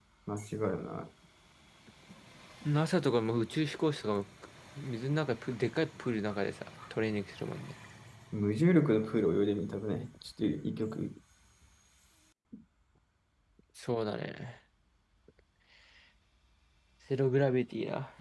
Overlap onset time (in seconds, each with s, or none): none